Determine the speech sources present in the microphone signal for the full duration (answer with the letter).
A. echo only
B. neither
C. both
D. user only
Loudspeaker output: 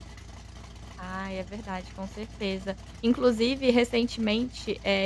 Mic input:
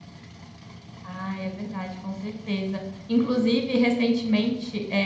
A